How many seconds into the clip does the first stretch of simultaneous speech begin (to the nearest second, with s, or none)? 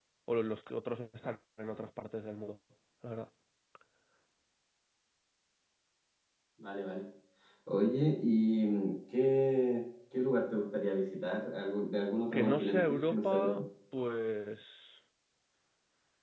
12 s